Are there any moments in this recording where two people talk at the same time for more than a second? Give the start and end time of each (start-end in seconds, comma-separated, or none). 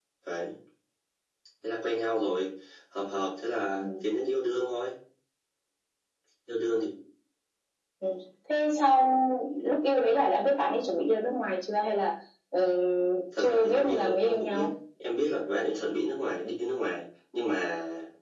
13.4-14.7